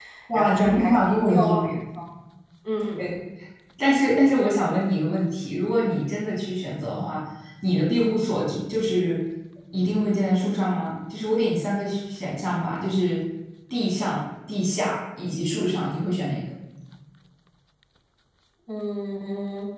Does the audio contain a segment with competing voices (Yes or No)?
Yes